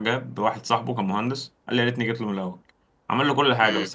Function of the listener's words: listening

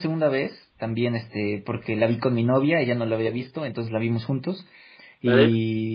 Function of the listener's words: listening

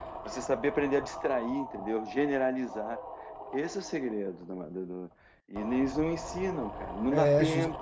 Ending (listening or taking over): taking over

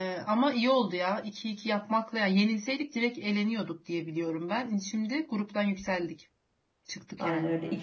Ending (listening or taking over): taking over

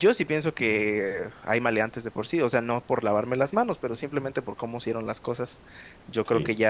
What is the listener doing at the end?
listening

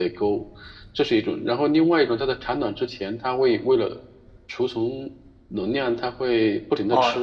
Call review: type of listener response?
taking over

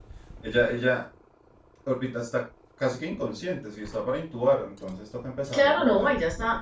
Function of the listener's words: taking over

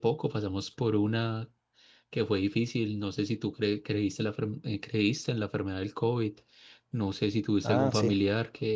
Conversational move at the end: listening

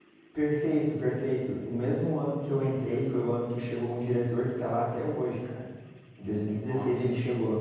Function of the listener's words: listening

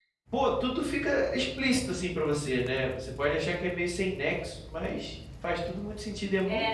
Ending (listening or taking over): taking over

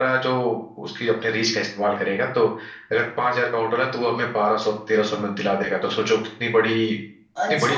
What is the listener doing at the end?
taking over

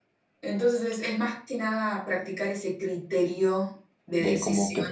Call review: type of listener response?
taking over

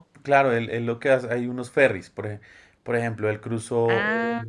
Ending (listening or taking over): listening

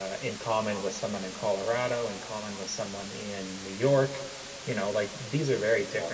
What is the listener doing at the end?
listening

